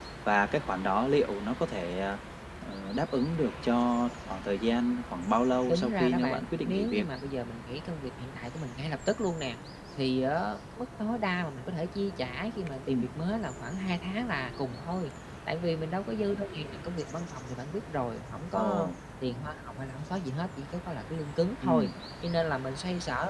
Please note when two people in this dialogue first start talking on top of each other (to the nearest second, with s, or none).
6 s